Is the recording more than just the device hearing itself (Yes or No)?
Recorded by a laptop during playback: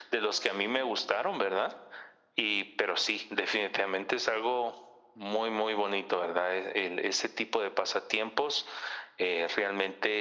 No